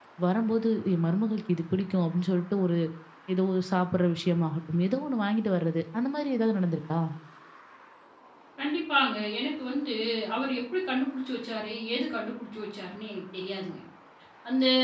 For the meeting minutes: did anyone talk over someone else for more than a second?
No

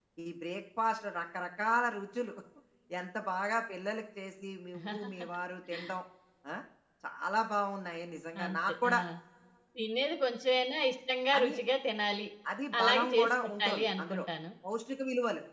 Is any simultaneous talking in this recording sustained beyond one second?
Yes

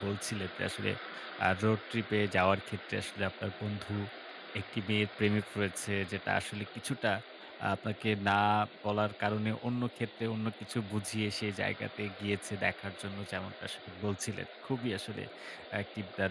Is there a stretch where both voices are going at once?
No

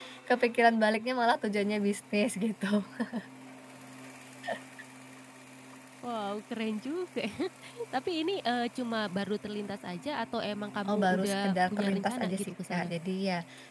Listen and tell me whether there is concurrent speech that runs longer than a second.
Yes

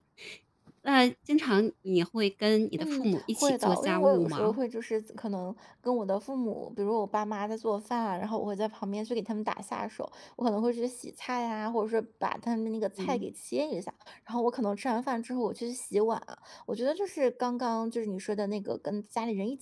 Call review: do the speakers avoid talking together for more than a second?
No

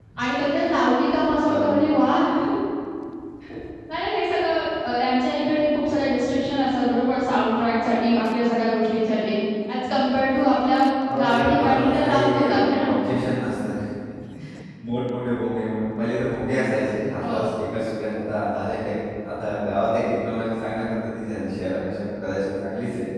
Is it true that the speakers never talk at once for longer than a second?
No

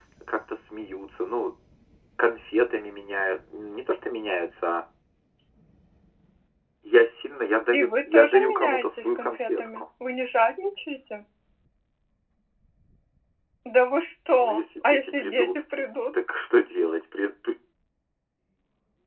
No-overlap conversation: No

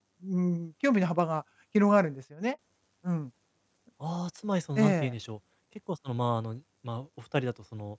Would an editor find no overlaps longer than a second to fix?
Yes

